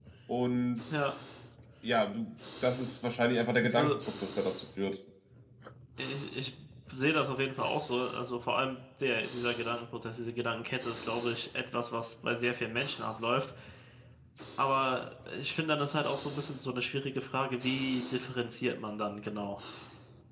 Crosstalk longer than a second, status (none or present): none